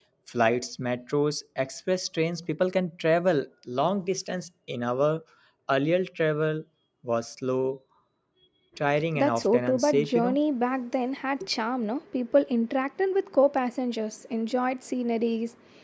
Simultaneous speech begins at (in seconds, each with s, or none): 9.1 s